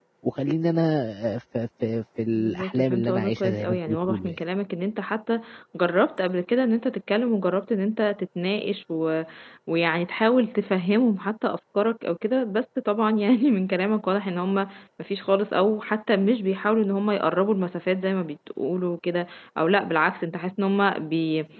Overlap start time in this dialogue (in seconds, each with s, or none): 2.3 s